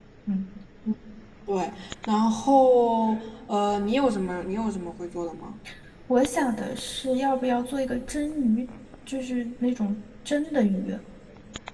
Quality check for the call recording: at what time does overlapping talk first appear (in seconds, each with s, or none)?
none